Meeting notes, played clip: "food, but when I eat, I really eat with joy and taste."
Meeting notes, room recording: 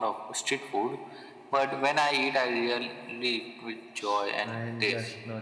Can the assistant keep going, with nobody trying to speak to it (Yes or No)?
No